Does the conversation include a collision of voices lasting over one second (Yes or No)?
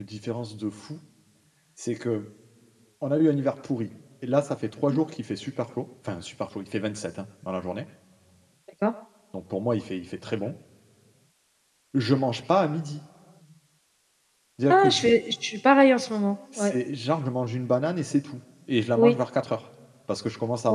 No